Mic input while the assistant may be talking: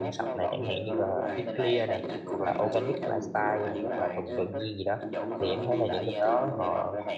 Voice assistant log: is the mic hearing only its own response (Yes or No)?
No